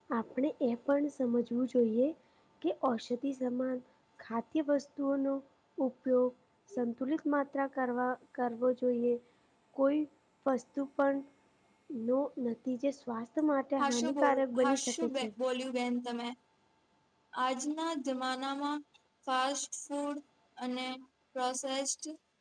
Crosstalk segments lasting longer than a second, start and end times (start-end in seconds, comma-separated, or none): 13.8-15.3